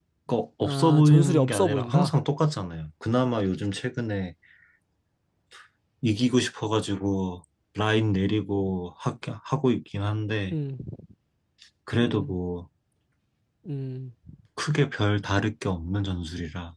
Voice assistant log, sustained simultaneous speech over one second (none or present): present